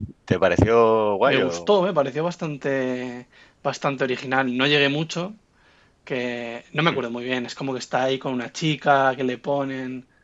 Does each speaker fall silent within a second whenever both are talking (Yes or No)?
Yes